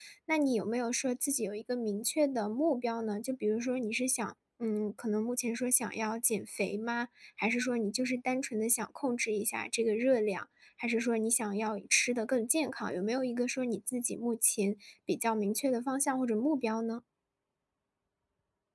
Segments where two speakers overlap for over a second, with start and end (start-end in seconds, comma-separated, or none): none